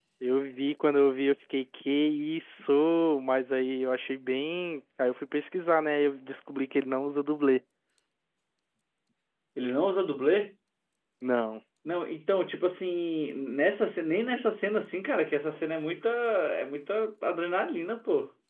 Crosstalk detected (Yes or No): No